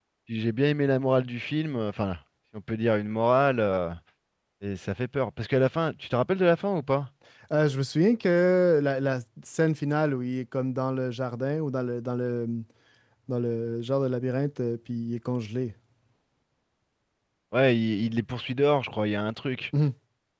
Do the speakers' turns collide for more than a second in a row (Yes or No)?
No